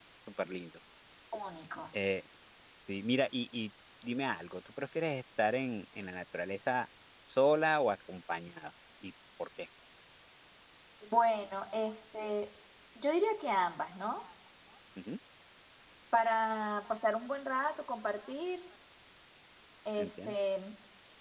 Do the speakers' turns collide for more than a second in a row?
No

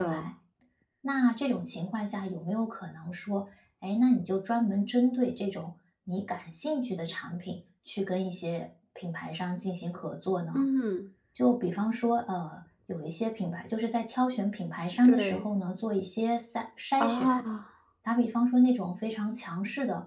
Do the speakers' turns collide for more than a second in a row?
No

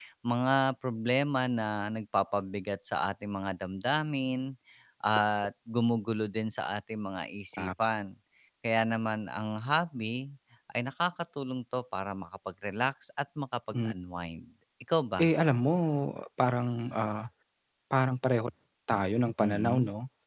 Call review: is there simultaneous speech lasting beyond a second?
No

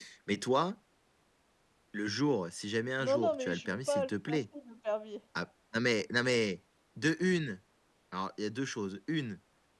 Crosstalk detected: Yes, from 3.0 s

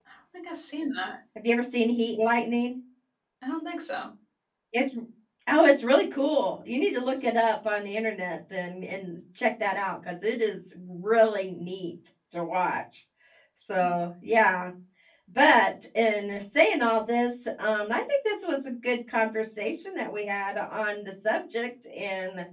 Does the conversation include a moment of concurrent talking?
No

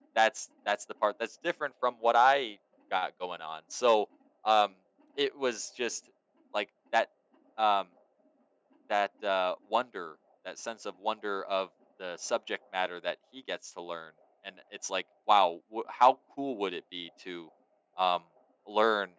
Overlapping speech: No

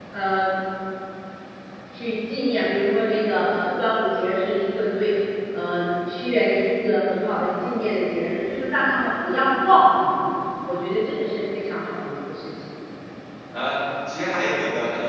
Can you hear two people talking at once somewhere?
No

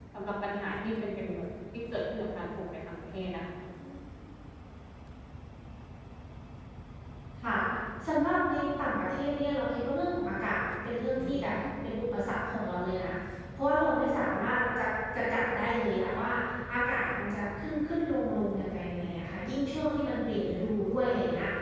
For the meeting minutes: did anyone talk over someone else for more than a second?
No

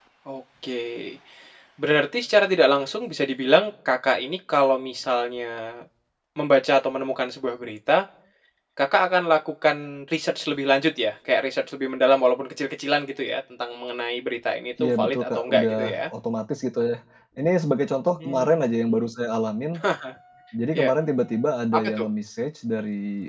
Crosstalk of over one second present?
Yes, from 14.8 s

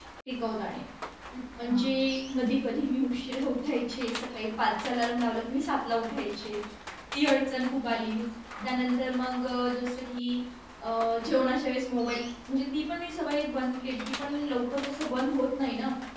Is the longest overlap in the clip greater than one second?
No

